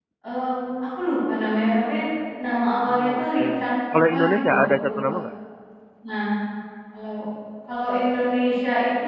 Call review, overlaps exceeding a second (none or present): present